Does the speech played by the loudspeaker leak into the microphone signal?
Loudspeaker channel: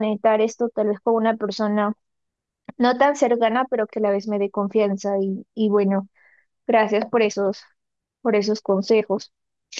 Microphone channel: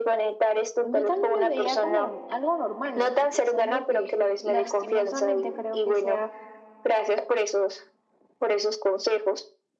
Yes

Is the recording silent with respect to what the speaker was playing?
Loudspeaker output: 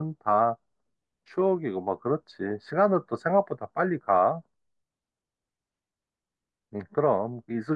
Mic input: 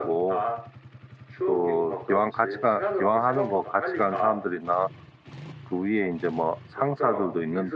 No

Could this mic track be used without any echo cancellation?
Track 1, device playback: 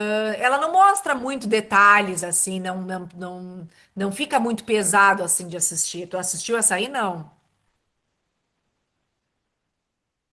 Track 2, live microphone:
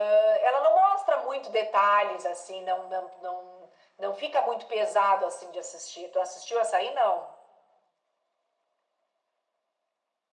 No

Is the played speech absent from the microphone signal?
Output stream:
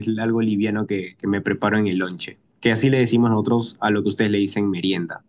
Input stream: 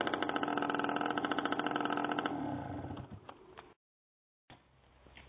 Yes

